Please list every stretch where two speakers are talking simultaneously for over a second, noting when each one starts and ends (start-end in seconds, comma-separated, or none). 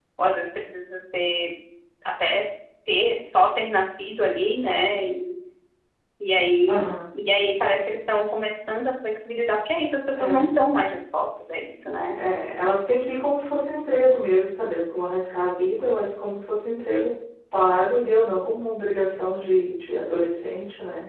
none